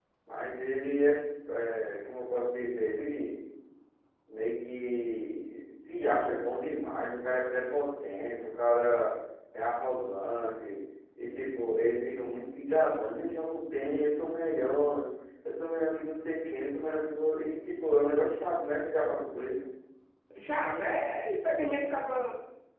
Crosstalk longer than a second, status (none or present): none